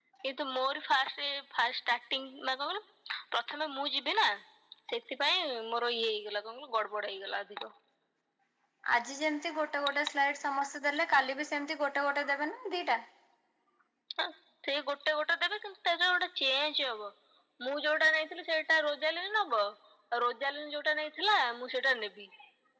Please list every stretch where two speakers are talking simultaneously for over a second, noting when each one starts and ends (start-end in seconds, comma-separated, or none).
none